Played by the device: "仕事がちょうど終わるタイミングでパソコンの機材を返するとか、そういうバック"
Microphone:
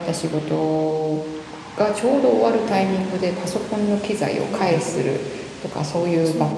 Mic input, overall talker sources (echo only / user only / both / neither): both